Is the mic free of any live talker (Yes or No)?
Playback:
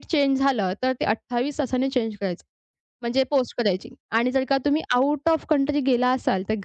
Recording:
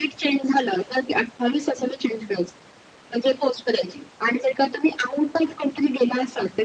Yes